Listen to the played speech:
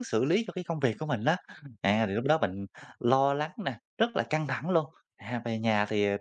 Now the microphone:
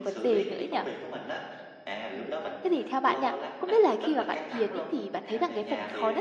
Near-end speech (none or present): present